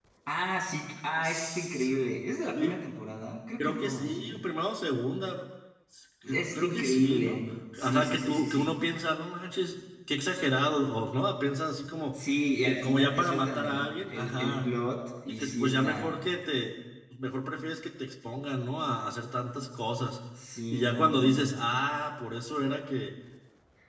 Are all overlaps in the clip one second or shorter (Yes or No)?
No